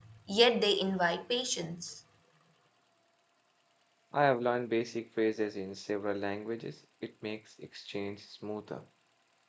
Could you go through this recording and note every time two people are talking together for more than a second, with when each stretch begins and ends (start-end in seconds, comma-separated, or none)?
none